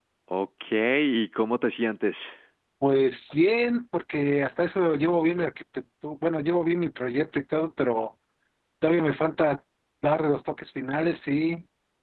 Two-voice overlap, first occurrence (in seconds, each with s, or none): none